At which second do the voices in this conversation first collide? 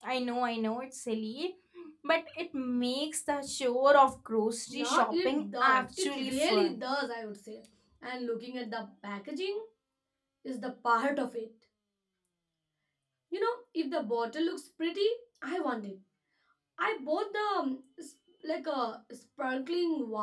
4.7 s

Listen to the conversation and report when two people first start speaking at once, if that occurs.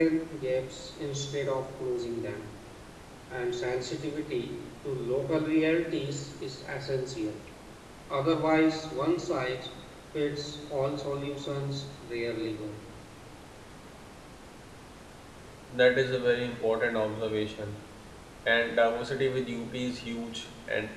none

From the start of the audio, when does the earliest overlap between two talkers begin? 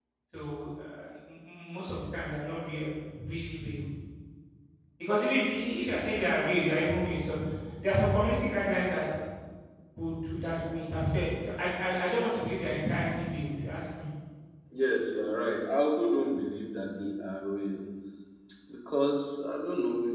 none

